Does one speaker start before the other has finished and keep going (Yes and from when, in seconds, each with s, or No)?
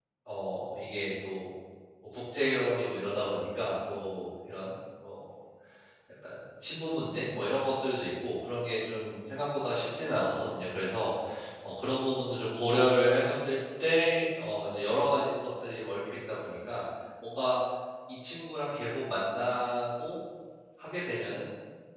No